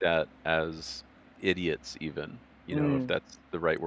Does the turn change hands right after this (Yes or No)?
No